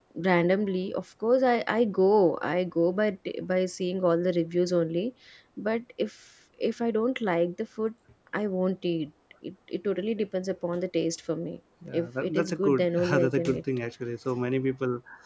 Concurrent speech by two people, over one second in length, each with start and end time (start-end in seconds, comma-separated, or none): 11.9-13.6